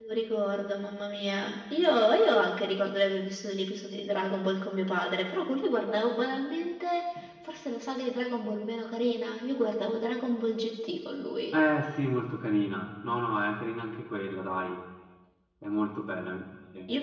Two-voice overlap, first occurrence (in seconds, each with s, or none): none